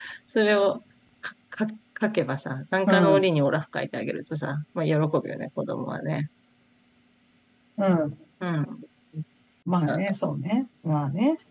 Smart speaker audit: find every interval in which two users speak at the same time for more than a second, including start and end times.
none

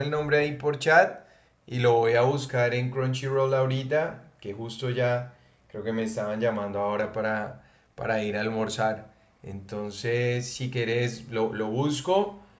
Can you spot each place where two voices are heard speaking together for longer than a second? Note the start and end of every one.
none

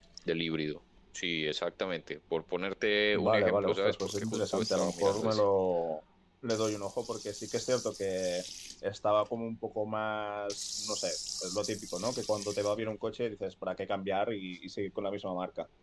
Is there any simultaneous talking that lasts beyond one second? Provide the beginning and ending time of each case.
3.1-5.4

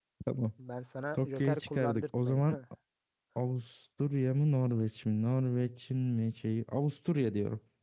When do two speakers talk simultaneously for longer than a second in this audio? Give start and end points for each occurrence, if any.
1.1-2.4

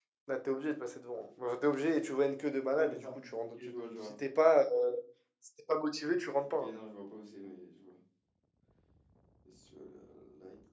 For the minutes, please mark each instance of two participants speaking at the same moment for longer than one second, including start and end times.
2.7-4.2

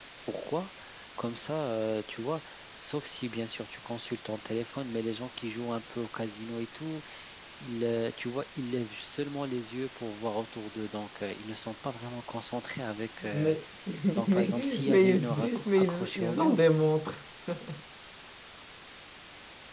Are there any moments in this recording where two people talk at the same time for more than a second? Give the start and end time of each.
14.3-16.6

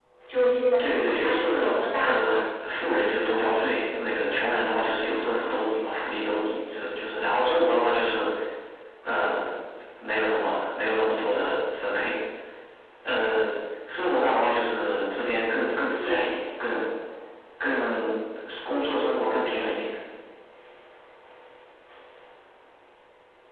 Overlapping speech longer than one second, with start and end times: 0.9-2.4

